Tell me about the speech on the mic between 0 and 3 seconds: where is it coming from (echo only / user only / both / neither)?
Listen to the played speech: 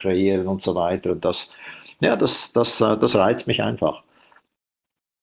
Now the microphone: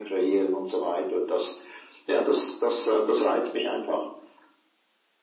echo only